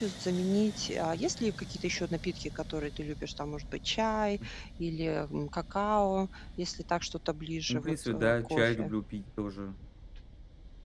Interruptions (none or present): present